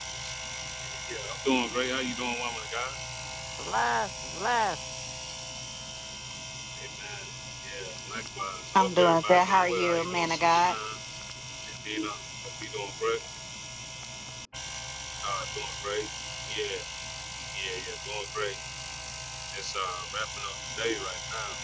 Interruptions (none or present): present